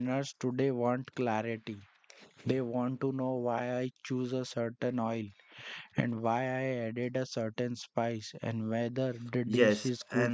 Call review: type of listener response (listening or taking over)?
taking over